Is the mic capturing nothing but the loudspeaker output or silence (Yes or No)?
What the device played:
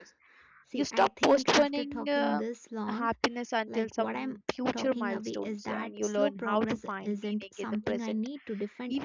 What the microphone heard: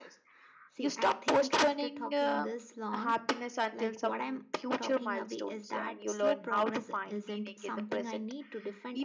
Yes